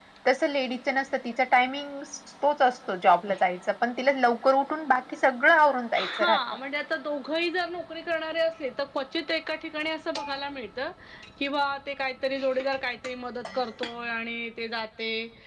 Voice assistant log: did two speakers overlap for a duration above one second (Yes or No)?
No